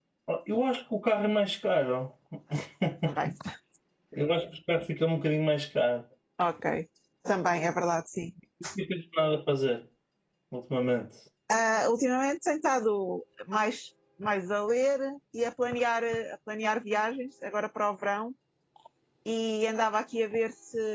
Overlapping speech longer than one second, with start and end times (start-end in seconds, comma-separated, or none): none